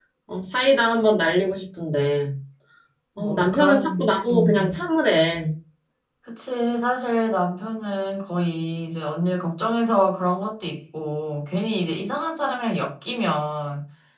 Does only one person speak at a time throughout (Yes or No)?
No